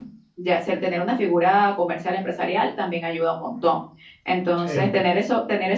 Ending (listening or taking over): listening